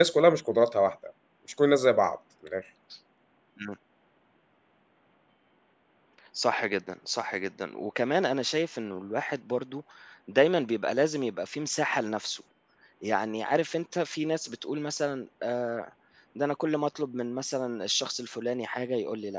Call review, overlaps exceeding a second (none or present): none